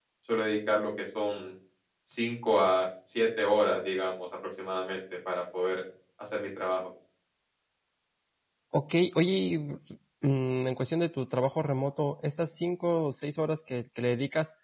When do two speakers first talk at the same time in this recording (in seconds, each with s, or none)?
none